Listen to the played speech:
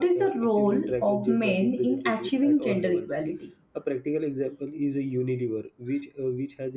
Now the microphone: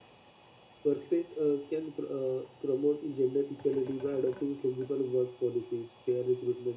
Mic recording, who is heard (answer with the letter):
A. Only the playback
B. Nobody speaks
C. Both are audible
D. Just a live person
D